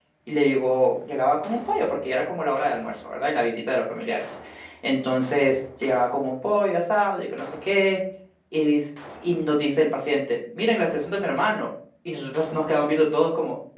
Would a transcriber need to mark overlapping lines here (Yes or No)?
No